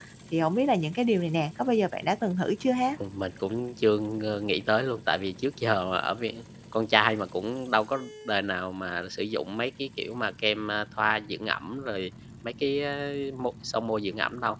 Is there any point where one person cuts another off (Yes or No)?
No